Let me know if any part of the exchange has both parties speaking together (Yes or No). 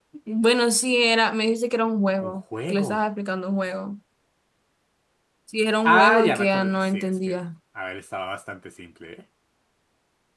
Yes